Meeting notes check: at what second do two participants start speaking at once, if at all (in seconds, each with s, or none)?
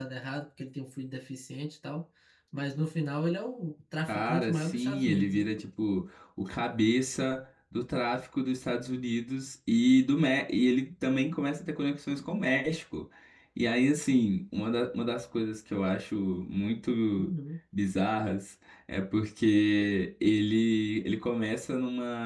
4.1 s